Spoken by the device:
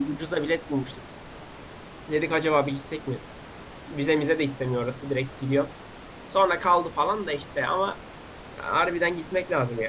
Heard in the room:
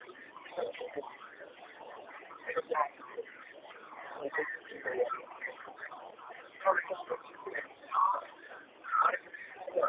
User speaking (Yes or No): No